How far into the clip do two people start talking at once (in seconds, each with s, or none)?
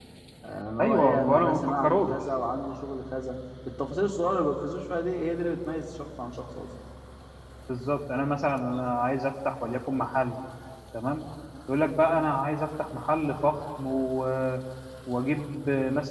0.8 s